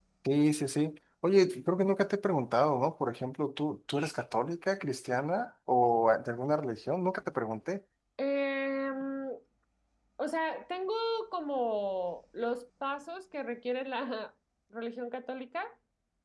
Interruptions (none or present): none